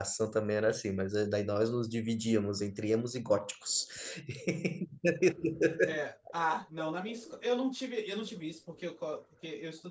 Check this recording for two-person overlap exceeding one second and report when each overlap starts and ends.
none

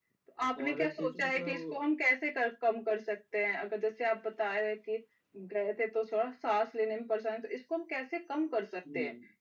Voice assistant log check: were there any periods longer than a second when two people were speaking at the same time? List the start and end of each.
0.6-1.8

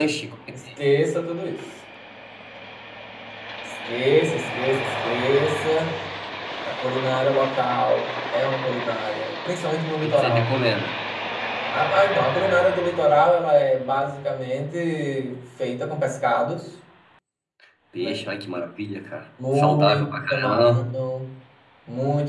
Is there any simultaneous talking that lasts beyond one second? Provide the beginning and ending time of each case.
19.5-20.8

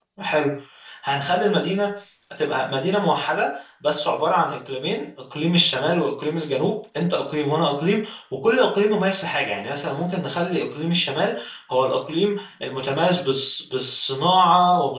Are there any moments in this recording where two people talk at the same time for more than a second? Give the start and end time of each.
none

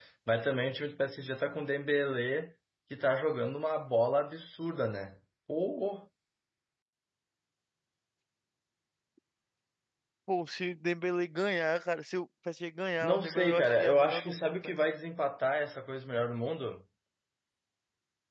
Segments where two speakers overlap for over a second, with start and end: 13.0-14.5

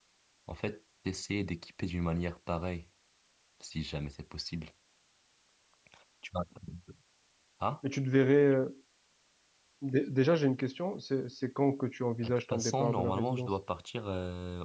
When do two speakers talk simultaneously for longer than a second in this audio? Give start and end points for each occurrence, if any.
12.2-13.5

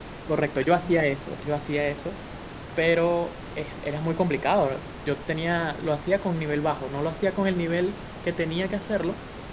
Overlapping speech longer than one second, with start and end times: none

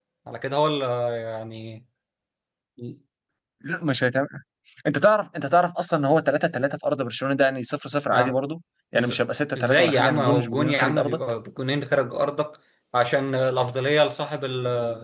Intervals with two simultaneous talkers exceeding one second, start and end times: 9.6-11.2

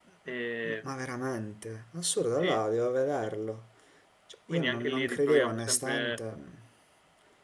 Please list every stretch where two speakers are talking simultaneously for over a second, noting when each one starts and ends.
4.5-6.2

